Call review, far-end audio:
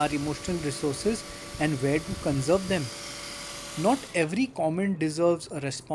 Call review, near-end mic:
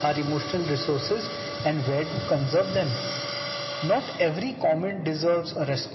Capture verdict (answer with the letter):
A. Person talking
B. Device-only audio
B